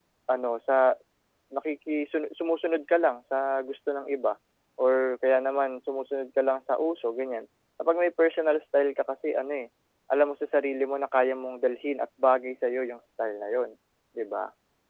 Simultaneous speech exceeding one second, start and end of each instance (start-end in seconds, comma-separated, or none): none